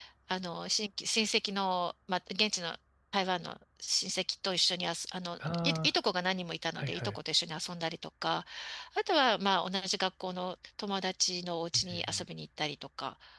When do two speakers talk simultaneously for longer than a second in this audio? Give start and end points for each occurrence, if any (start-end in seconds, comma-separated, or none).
none